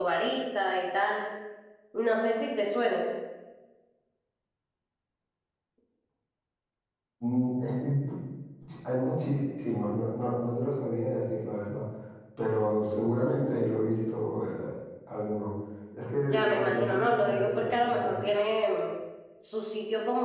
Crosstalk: present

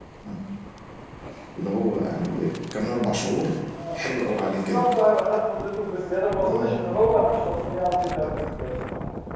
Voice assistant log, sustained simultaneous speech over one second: none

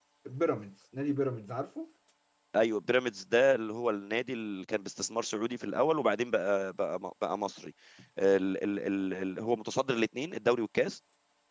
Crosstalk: none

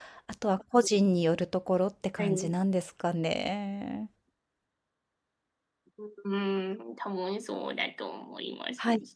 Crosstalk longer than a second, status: none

